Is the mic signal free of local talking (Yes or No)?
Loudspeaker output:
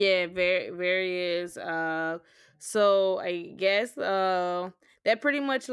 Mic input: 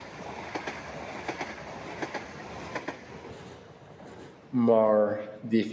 No